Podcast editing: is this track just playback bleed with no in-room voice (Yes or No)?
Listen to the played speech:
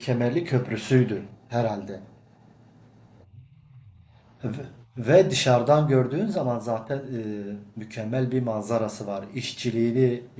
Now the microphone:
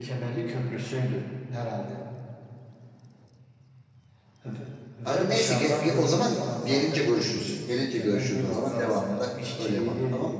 No